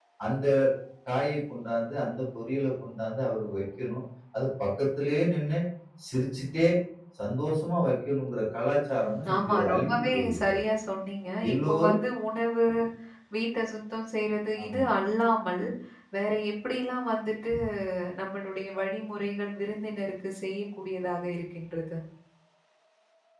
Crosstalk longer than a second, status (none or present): present